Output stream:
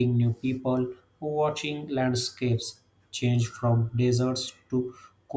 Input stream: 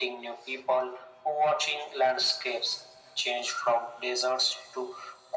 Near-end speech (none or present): none